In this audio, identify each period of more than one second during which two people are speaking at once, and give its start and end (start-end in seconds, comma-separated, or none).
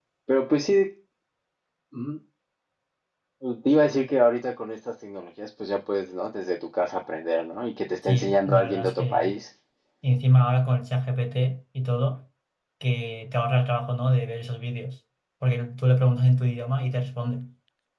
8.1-9.3